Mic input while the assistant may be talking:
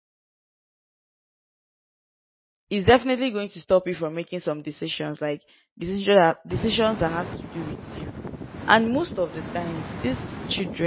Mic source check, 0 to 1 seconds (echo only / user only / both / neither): neither